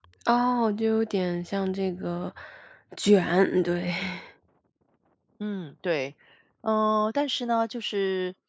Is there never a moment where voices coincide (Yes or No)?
Yes